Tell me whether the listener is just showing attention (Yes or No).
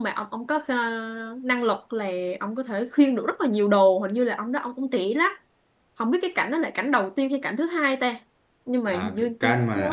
No